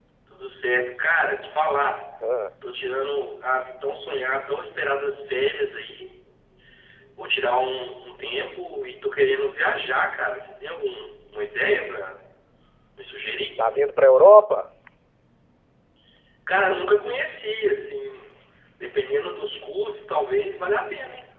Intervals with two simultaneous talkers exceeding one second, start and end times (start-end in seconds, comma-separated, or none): none